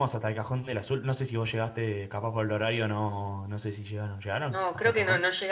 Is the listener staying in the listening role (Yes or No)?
No